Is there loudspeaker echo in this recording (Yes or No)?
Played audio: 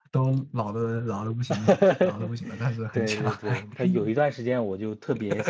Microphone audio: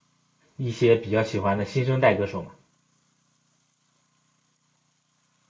No